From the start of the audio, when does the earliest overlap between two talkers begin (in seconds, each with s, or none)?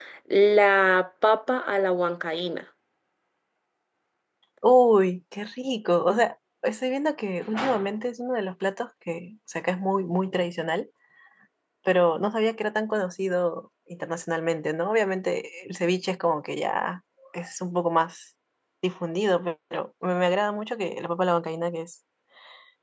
none